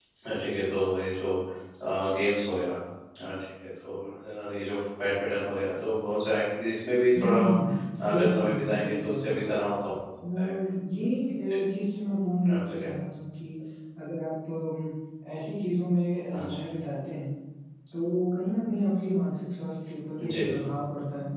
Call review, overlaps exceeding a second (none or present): present